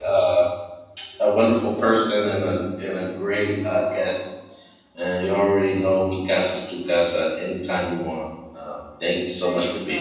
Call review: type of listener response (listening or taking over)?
taking over